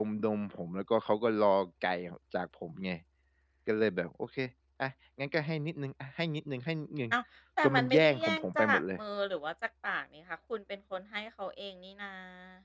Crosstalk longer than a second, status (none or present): present